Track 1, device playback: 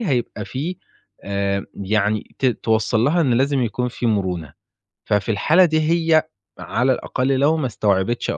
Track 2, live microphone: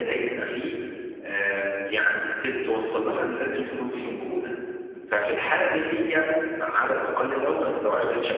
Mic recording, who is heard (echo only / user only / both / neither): echo only